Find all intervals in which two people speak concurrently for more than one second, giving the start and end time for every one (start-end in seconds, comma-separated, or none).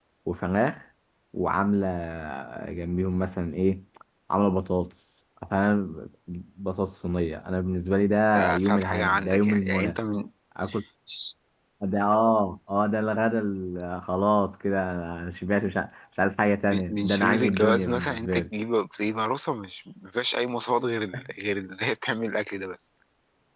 8.3-10.0, 16.7-18.4